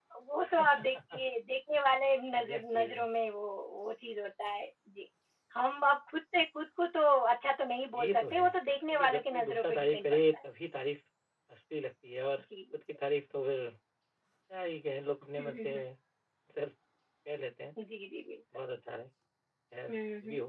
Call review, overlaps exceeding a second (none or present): present